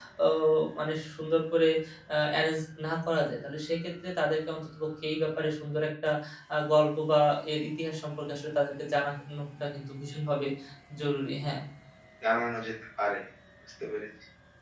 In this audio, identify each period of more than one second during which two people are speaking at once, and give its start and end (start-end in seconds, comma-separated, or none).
none